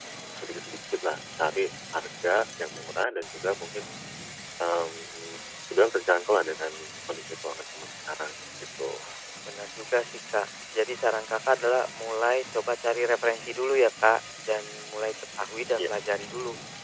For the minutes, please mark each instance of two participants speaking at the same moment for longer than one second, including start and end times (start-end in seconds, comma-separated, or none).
none